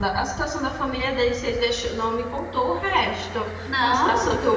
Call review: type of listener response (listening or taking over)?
listening